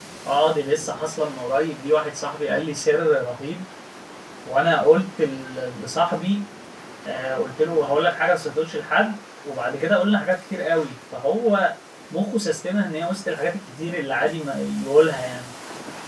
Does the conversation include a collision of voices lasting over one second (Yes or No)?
No